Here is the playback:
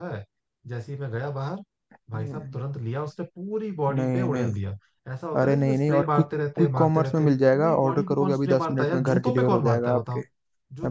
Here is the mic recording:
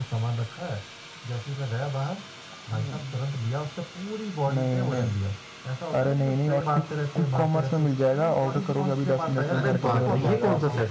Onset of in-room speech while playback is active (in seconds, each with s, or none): 9.6 s